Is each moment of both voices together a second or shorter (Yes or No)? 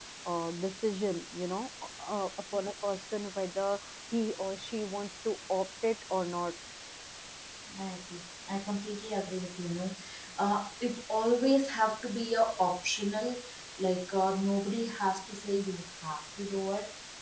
Yes